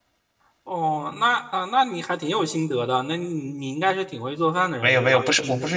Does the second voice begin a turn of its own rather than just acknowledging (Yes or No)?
Yes